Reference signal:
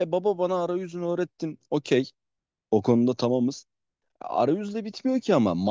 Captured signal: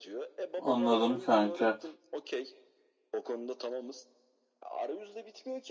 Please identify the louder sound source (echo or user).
user